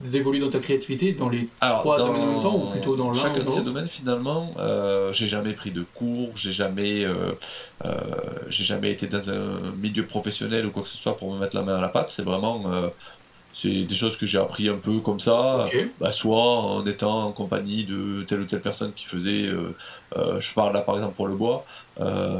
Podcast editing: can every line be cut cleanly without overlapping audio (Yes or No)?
No